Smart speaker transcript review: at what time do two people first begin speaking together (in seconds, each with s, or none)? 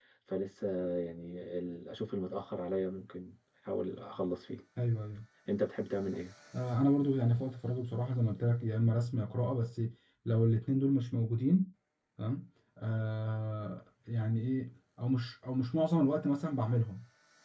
none